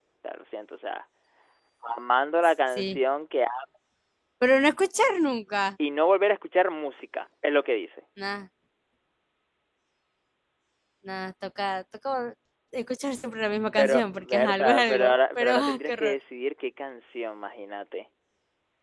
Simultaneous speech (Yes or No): Yes